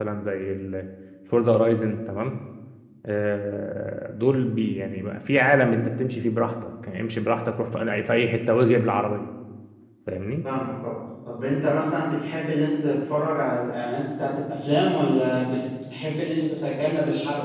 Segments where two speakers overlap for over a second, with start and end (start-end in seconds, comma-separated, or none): none